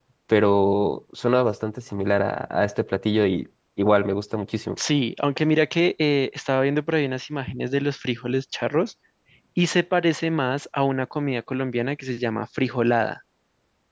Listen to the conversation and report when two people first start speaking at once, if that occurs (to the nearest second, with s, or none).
none